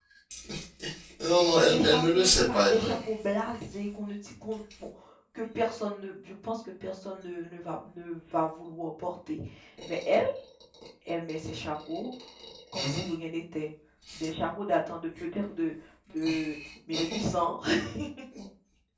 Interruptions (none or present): present